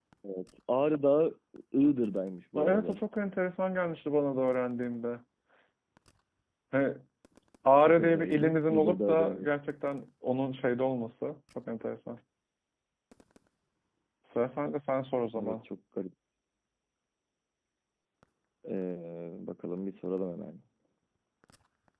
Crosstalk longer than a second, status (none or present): present